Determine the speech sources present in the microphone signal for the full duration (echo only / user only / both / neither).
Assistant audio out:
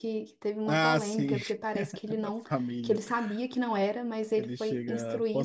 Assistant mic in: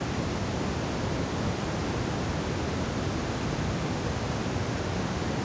neither